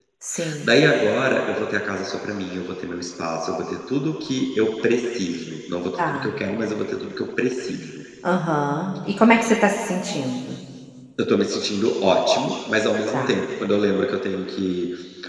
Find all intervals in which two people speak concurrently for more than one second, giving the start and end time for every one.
none

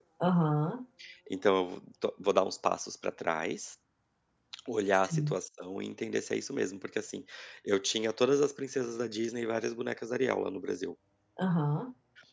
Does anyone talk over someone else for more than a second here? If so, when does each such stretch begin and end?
none

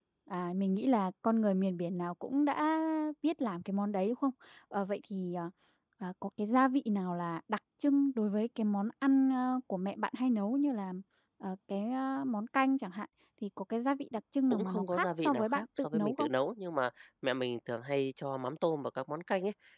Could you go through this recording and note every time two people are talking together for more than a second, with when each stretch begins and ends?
14.5-16.3

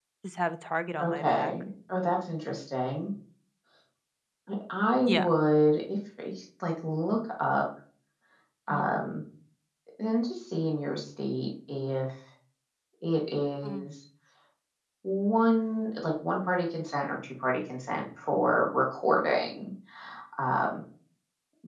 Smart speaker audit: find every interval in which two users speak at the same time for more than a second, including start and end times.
none

